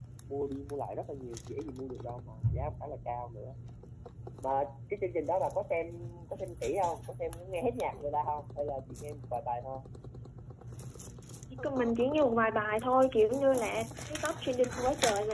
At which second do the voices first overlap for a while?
none

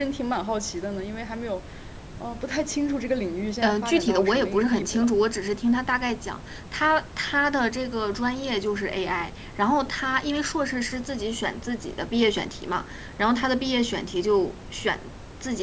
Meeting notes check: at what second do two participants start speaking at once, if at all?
3.6 s

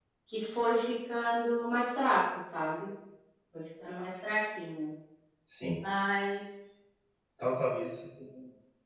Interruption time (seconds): none

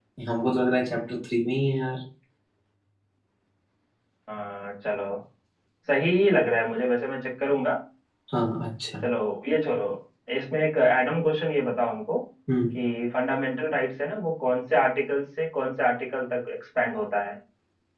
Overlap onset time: none

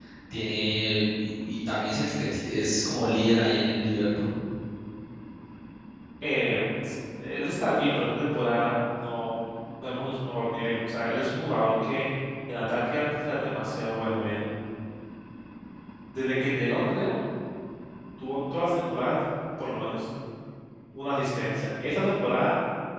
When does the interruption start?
none

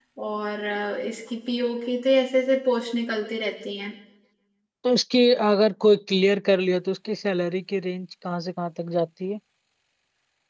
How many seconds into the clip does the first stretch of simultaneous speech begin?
none

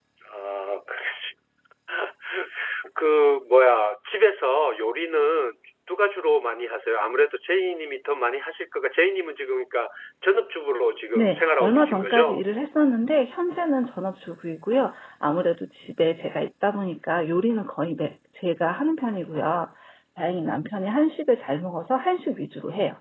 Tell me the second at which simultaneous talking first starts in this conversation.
11.2 s

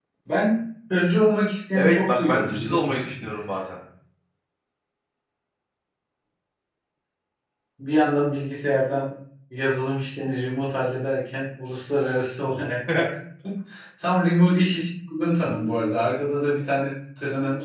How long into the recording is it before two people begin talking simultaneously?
1.7 s

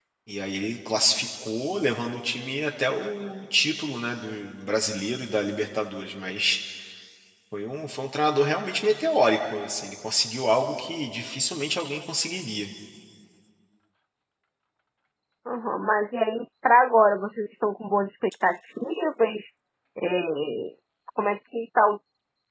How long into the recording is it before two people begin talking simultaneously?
none

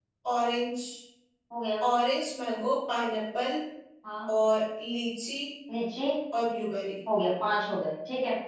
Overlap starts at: none

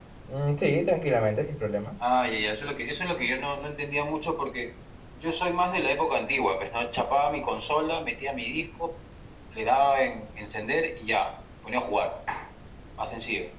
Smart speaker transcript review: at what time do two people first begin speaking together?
none

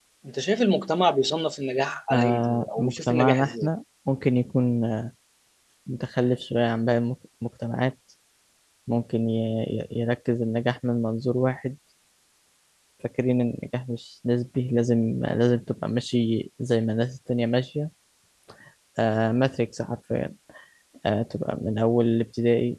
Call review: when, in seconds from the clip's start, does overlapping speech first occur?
2.1 s

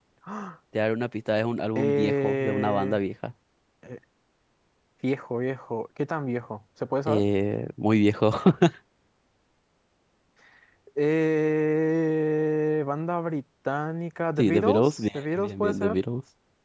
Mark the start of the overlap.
1.8 s

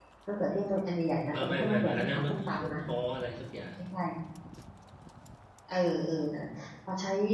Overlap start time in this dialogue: 1.3 s

